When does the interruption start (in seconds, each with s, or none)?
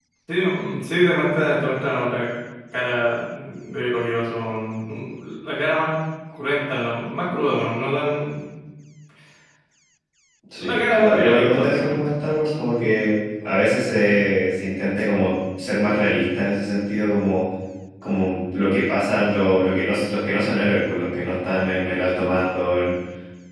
10.6 s